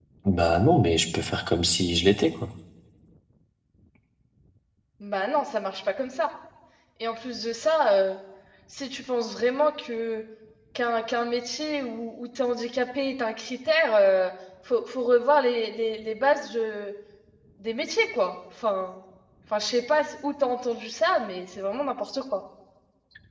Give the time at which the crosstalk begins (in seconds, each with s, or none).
none